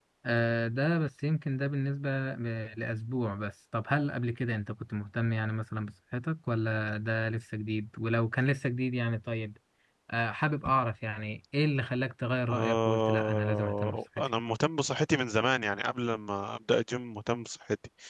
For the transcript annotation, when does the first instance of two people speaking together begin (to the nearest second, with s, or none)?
12 s